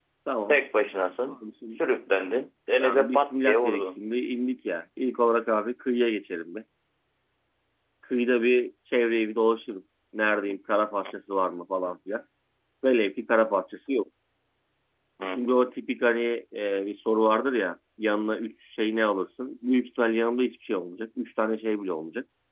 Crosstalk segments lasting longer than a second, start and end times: 2.8-4.0

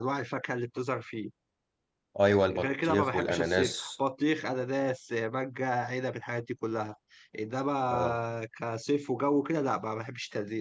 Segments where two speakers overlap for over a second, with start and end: 2.5-3.9

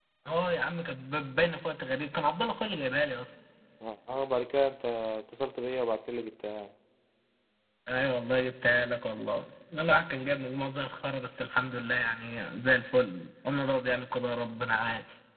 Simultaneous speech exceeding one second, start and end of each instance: none

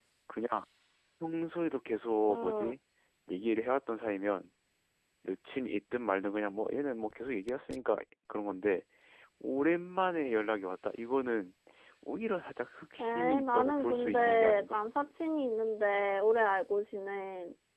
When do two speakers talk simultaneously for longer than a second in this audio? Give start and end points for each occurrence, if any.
13.0-14.8

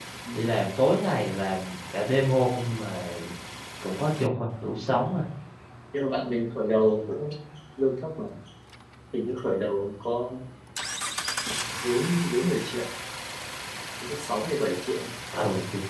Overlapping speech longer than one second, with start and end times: none

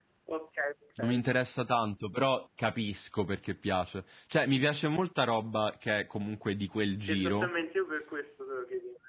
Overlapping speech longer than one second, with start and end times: none

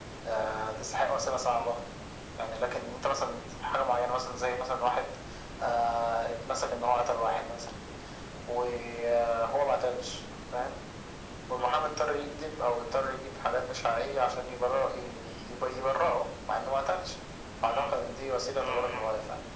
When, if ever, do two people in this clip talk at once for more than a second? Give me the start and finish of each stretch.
none

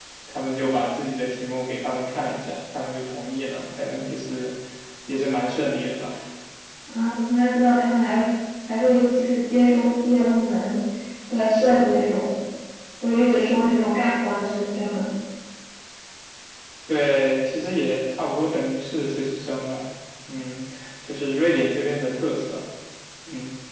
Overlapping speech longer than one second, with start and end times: none

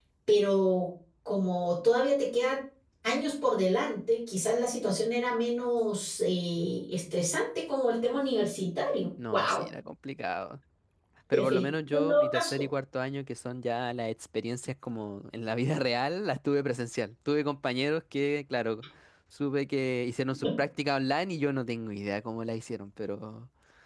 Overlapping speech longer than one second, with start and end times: 11.3-12.6

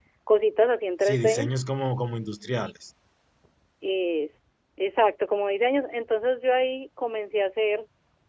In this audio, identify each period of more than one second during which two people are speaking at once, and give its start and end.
none

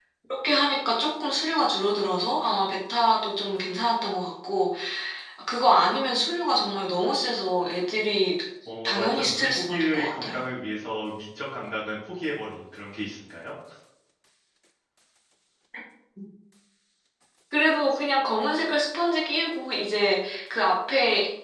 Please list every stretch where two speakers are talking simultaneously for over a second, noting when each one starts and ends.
8.8-10.4

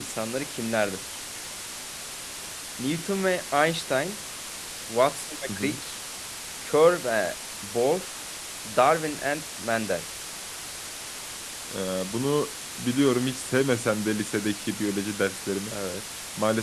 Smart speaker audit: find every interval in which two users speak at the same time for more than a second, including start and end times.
none

